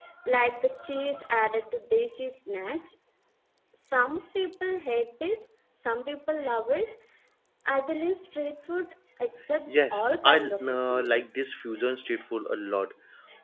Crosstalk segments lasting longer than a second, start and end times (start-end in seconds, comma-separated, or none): 9.7-11.3